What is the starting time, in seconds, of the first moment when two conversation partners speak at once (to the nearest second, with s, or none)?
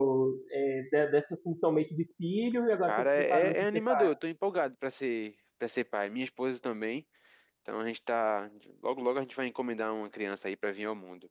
3 s